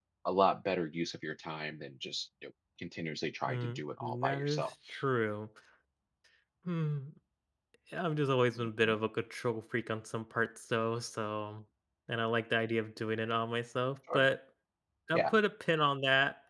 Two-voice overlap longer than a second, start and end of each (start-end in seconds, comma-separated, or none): 3.5-4.7